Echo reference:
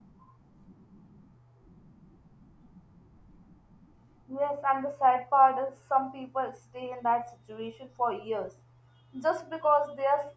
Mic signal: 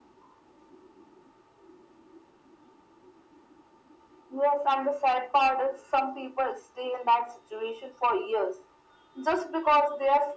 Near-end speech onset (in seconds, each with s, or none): none